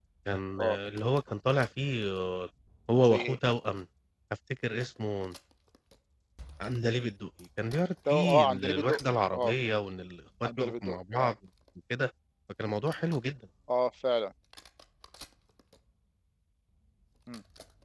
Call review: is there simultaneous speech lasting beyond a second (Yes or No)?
Yes